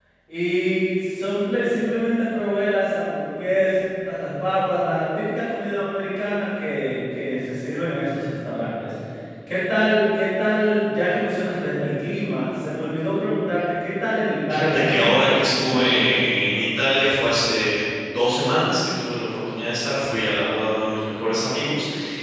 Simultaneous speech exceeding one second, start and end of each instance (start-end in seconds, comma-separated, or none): 14.5-16.2